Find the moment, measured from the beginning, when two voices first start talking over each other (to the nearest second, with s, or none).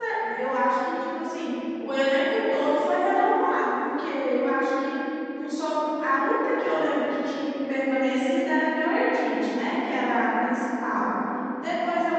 none